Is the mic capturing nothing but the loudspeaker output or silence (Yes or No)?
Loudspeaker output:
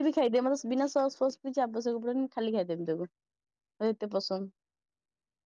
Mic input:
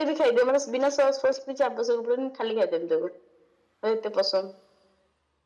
Yes